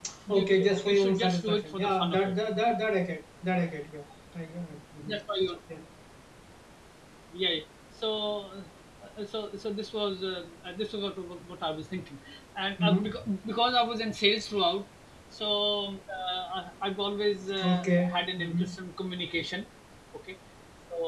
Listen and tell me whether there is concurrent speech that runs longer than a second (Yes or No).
Yes